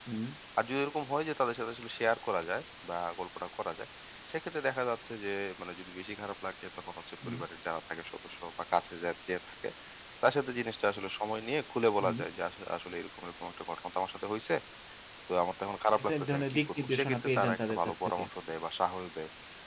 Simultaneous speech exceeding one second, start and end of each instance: 16.0-18.2

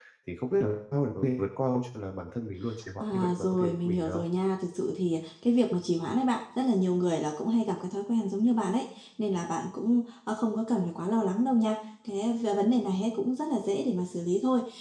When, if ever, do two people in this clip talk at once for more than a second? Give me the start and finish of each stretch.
3.0-4.2

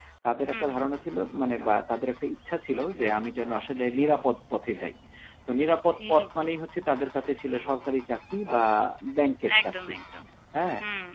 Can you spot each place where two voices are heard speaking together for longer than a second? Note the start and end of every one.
none

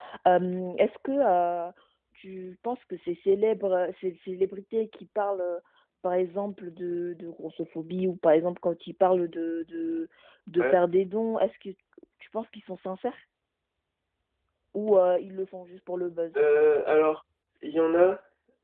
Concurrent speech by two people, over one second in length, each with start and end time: none

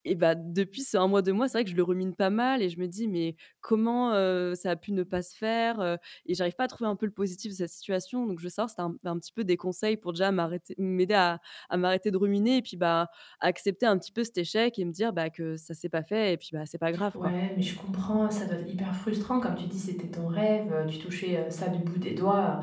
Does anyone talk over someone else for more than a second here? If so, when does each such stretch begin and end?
none

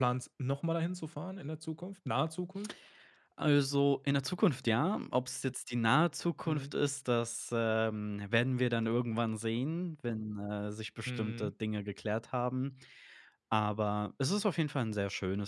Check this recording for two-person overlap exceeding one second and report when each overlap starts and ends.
none

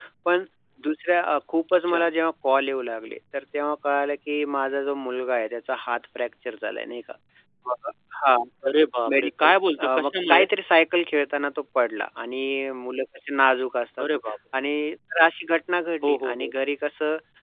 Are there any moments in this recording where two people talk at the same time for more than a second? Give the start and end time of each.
9.1-10.4

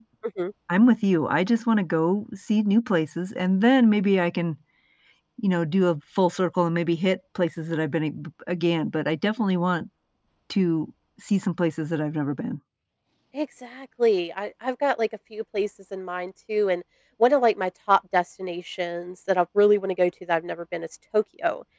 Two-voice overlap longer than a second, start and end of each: none

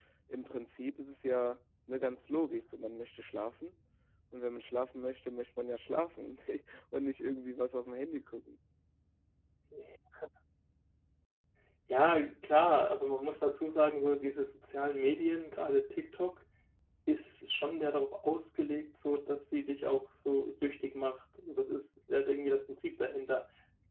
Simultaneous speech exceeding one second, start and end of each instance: none

